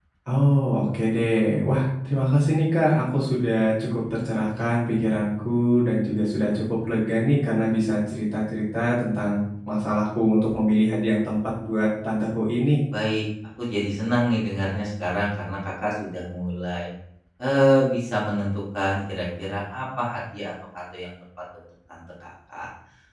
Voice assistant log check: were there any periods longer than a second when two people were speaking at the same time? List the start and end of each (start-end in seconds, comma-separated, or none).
none